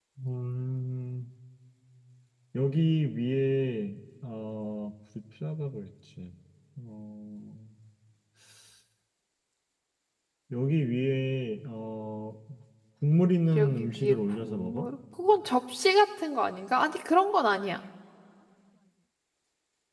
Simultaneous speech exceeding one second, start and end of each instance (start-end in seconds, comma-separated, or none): 13.6-14.9